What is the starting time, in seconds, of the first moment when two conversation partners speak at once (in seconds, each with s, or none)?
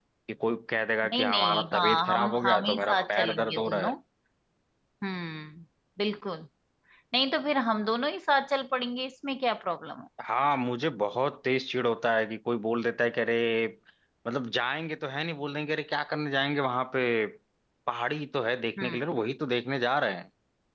1.0 s